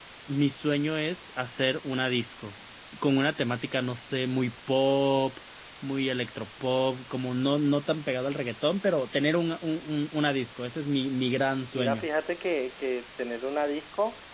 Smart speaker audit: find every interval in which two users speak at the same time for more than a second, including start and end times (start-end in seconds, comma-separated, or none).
none